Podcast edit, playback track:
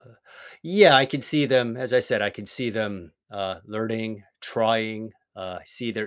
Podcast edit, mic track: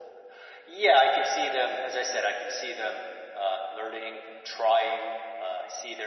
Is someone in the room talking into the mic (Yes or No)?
No